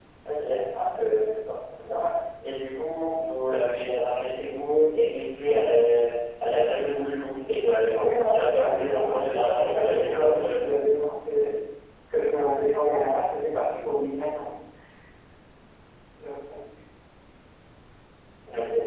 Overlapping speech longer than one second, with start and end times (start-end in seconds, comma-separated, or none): 7.9-10.7